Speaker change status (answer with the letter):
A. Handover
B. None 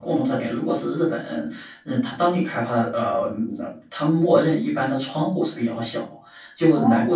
B